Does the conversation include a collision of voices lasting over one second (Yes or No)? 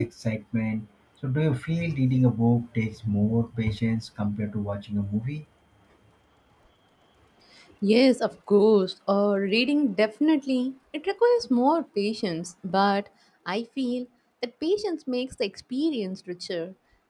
No